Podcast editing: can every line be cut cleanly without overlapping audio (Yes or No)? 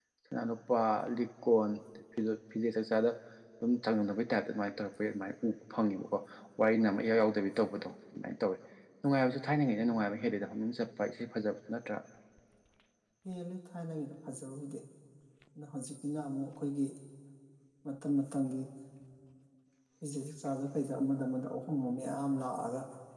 Yes